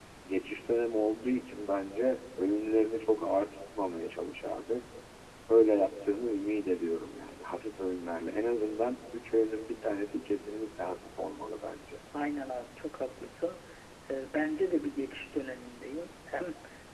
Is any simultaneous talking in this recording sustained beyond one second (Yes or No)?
No